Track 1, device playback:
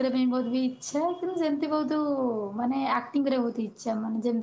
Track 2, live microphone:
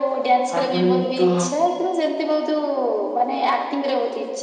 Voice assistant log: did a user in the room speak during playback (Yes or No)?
Yes